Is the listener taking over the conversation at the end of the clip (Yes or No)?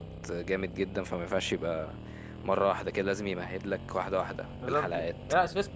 Yes